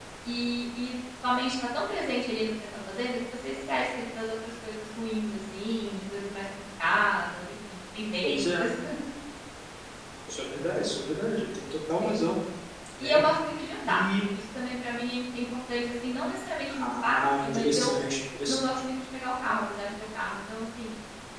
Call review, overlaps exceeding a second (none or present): present